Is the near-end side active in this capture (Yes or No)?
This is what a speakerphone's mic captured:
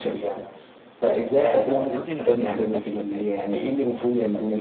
Yes